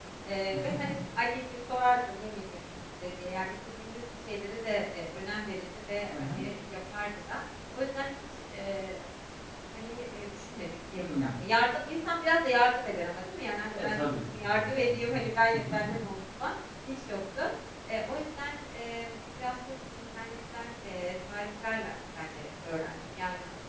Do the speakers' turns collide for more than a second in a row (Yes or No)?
Yes